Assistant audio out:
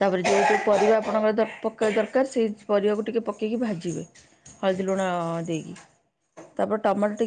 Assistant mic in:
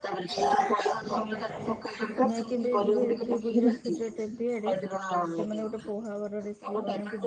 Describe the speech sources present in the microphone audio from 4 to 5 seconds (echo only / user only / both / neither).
both